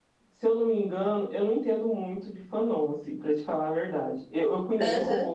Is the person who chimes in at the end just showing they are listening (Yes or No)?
Yes